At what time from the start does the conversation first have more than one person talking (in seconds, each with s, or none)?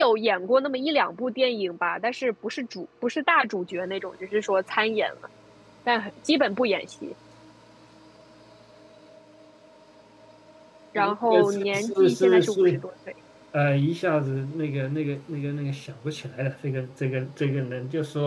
11.0 s